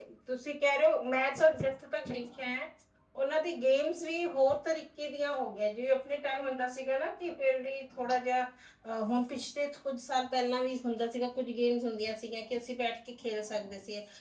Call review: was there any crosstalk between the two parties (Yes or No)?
No